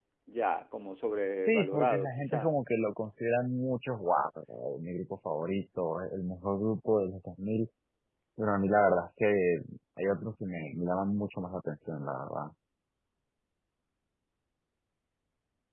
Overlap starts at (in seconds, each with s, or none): 1.3 s